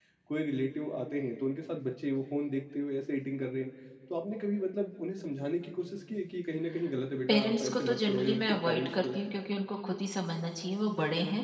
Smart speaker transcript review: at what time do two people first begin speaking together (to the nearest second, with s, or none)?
7 s